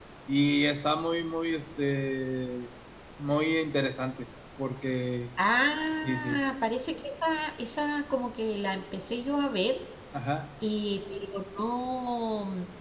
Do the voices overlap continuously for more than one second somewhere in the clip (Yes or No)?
No